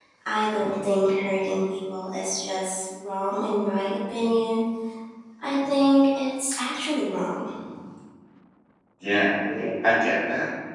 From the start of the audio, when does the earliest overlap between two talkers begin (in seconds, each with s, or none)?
none